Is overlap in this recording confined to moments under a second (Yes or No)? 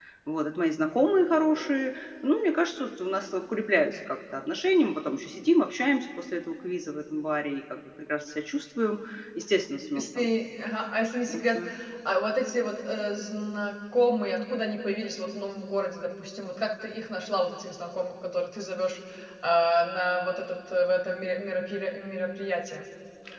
Yes